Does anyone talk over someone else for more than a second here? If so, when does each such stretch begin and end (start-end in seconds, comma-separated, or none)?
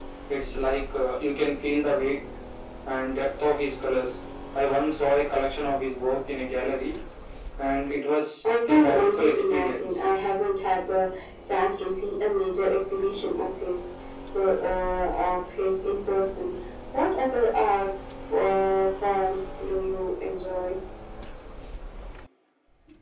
8.7-9.9